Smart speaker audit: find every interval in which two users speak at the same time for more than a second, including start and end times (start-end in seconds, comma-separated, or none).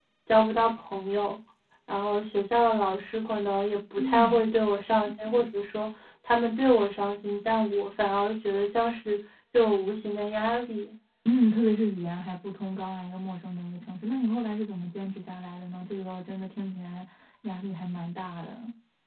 none